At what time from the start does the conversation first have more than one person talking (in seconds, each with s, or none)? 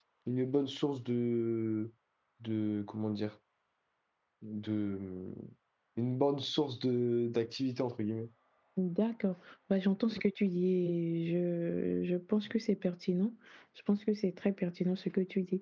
none